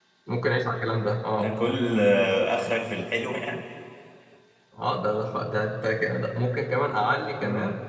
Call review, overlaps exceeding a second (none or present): none